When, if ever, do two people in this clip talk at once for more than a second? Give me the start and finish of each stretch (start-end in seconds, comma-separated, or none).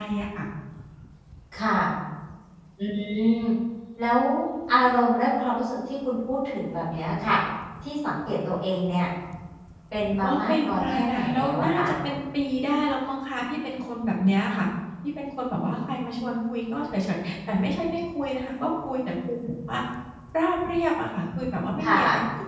10.3-11.8